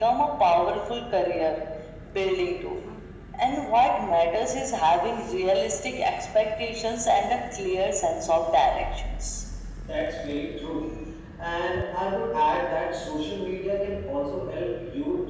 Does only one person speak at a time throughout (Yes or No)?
Yes